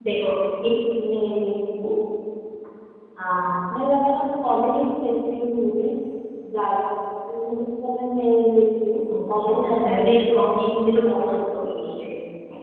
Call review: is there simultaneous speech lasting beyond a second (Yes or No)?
Yes